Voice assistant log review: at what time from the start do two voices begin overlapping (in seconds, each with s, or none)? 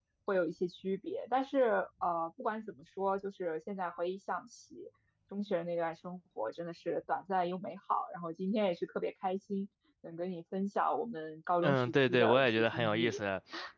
11.6 s